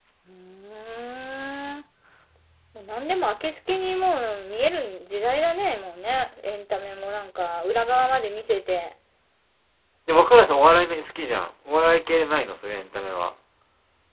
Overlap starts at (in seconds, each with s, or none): none